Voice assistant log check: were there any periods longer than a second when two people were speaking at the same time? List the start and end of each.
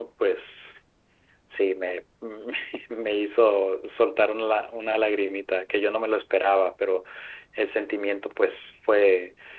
none

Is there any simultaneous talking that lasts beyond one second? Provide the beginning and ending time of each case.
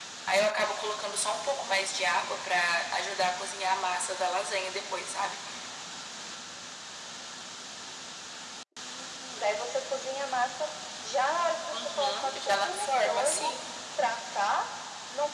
11.7-13.4

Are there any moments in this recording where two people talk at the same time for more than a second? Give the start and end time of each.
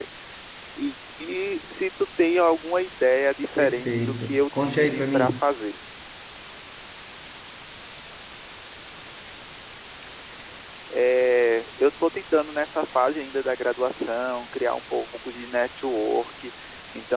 3.6-5.4

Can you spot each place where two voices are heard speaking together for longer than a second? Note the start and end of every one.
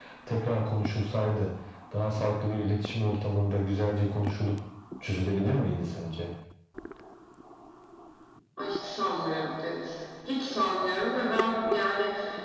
none

